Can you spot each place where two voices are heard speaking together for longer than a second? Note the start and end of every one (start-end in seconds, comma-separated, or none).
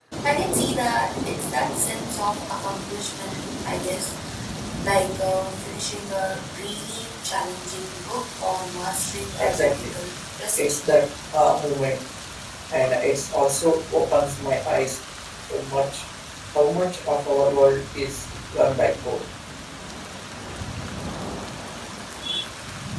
none